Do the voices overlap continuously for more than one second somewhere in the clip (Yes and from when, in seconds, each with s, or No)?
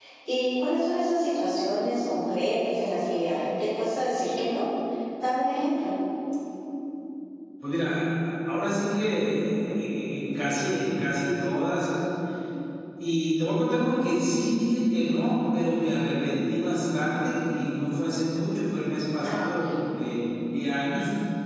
No